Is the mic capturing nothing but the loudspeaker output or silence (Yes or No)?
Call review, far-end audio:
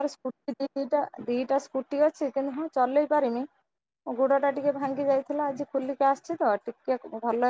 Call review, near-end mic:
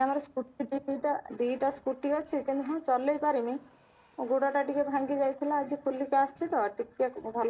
Yes